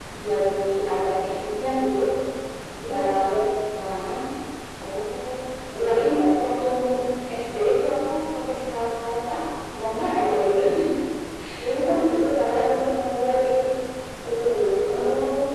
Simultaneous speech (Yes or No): Yes